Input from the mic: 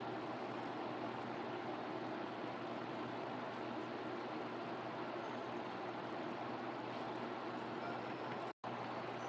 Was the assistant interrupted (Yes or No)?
No